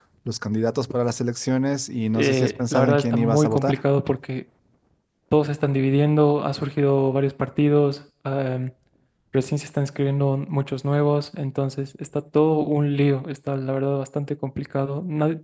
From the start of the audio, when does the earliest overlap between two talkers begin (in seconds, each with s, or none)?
2.1 s